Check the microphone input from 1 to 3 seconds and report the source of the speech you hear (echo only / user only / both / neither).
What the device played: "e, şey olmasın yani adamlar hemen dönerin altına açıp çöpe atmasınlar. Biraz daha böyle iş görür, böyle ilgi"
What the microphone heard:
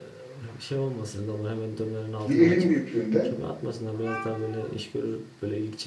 both